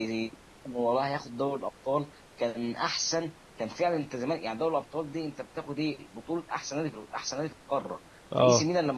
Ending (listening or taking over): listening